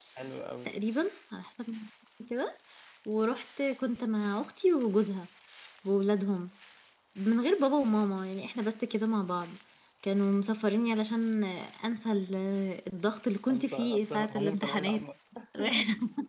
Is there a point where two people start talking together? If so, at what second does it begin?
13.5 s

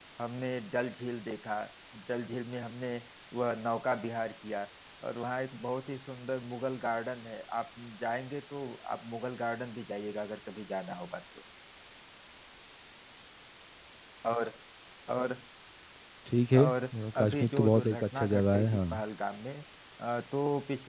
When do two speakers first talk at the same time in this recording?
16.6 s

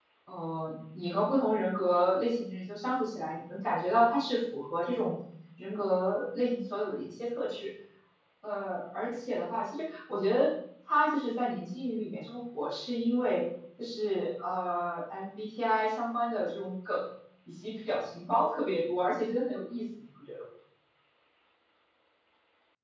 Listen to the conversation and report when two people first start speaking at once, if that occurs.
none

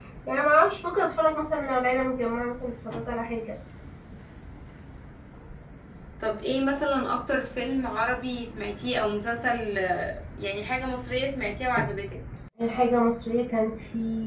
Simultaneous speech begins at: none

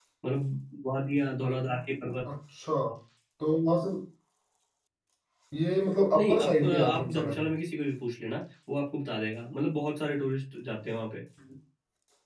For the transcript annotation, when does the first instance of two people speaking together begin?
6.1 s

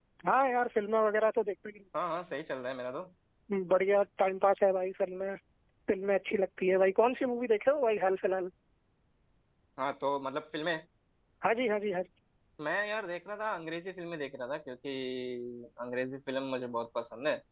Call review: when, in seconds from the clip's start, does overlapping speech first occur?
none

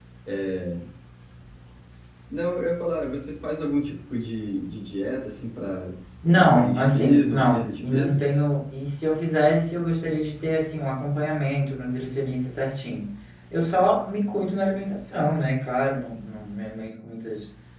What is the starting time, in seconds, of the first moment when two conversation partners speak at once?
6.3 s

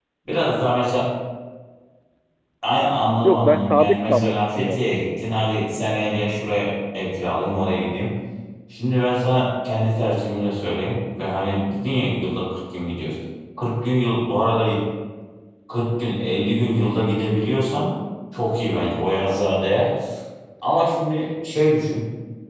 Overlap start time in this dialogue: 3.2 s

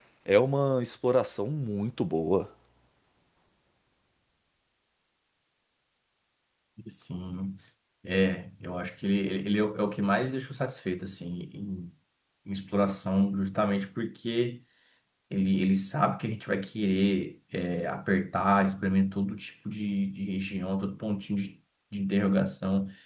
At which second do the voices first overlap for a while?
none

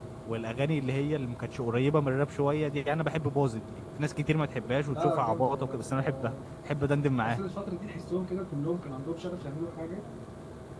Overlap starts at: 4.9 s

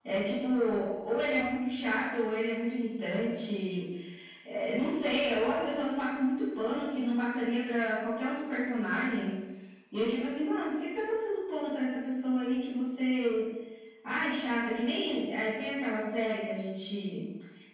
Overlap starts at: none

